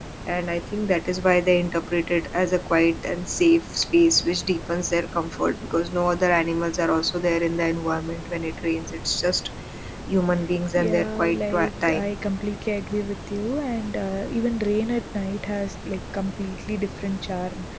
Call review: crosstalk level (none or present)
present